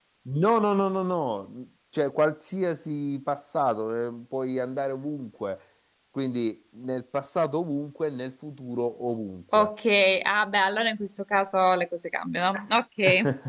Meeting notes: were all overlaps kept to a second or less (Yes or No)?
Yes